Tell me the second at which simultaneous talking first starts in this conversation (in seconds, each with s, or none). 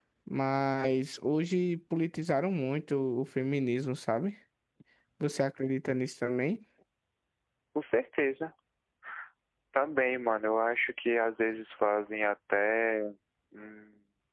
none